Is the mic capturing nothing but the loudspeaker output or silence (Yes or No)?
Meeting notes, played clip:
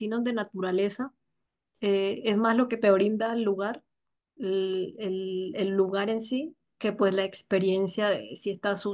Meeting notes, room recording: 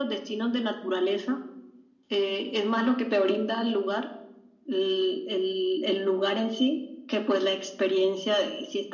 Yes